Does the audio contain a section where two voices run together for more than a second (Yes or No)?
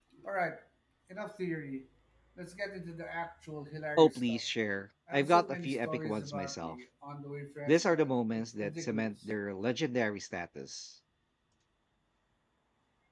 Yes